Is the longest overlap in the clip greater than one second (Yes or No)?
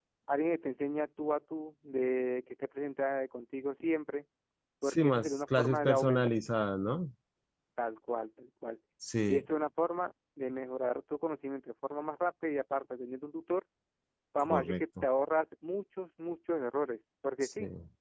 Yes